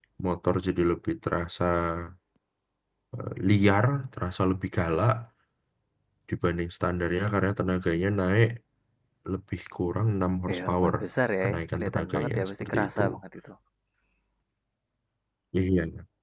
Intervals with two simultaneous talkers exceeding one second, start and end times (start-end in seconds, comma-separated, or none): 11.4-13.0